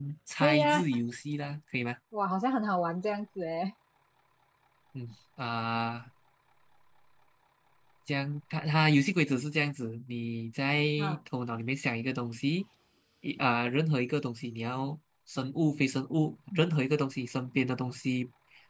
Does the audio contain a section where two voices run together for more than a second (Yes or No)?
No